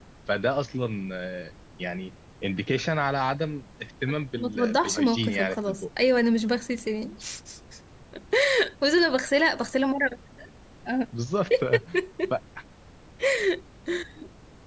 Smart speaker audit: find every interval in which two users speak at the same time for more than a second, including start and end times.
4.4-5.8

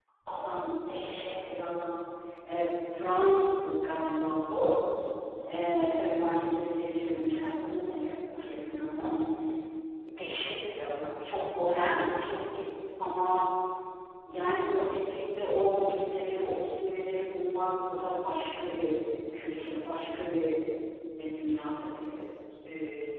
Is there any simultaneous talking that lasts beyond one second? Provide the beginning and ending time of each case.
none

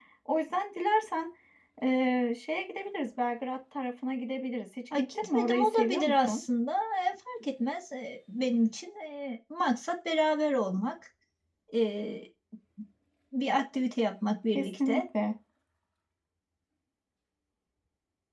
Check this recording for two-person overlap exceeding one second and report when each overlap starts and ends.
5.2-6.4

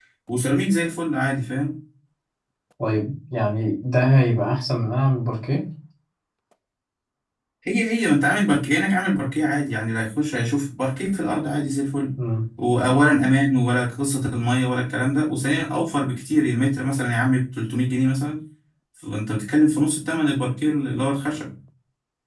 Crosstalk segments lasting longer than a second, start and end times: none

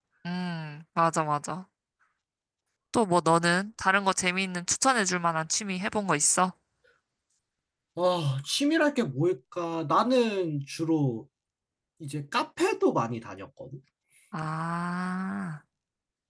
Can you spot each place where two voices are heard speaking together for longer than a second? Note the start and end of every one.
none

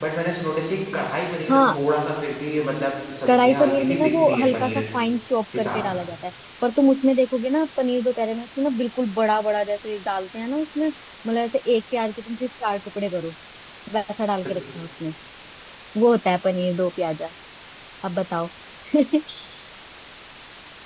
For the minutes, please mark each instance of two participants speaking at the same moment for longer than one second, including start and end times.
3.3-4.8

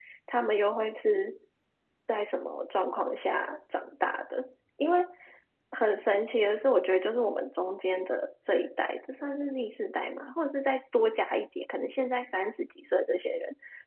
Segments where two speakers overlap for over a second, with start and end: none

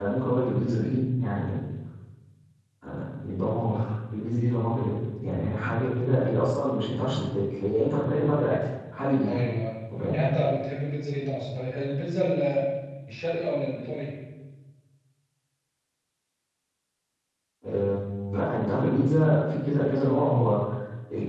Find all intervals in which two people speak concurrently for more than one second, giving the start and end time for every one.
none

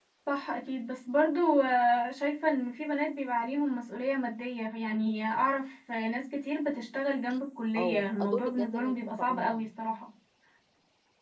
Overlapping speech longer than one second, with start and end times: 7.8-9.7

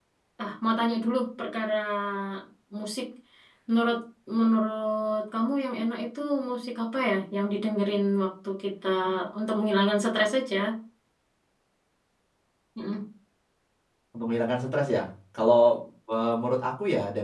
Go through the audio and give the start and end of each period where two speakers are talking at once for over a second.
none

